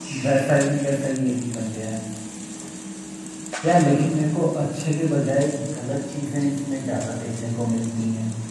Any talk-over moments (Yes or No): No